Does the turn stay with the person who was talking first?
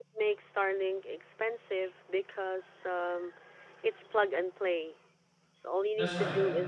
Yes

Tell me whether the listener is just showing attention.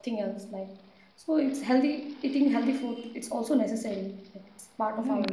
No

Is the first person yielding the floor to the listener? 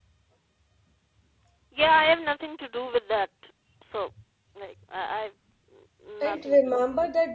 Yes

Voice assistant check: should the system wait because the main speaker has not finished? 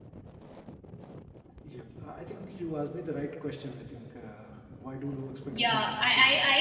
No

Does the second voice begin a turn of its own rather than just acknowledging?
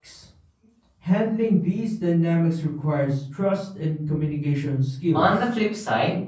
Yes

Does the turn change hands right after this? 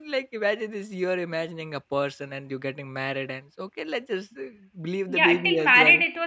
Yes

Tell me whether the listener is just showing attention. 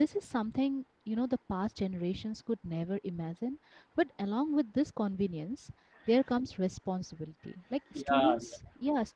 Yes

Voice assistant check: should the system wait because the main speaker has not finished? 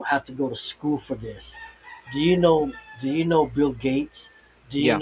Yes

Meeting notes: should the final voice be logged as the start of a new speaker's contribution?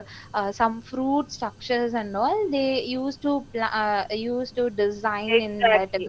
Yes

